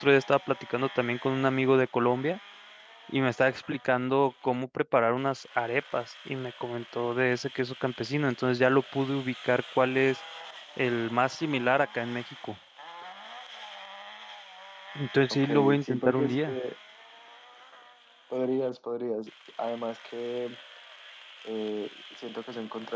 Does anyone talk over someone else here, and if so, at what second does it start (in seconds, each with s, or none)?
15.3 s